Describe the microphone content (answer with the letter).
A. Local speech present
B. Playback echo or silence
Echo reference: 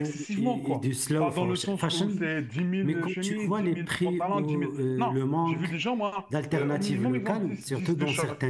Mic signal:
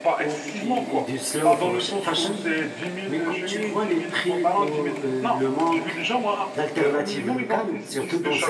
B